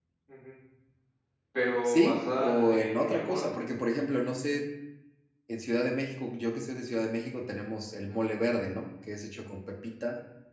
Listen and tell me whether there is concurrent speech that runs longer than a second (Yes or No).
Yes